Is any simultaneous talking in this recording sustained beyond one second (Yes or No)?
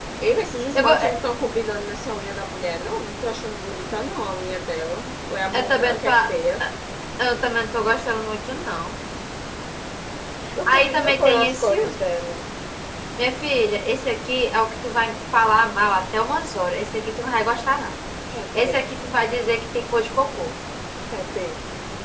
Yes